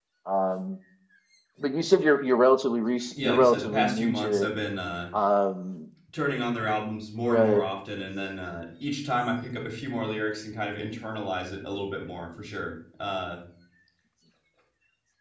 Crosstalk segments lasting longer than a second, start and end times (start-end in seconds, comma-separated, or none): 3.2-4.5